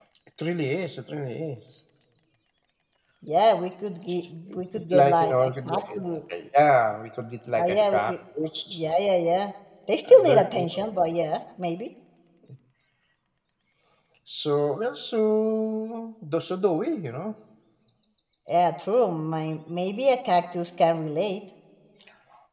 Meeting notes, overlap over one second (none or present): present